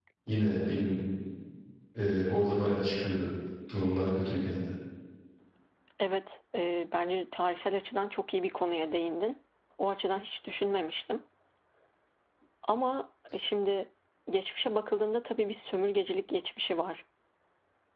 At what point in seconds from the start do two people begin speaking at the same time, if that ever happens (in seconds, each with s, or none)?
none